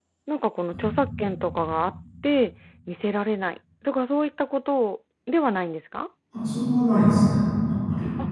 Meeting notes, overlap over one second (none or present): none